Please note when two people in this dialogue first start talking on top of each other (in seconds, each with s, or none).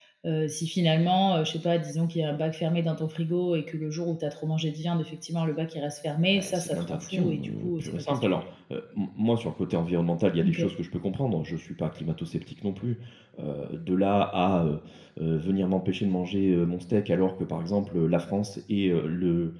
6.3 s